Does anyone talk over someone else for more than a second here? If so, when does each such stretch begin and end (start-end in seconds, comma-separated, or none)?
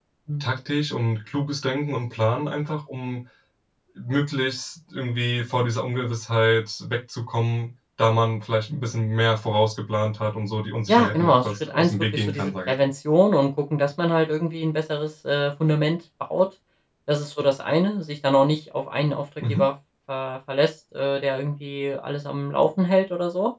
10.9-12.7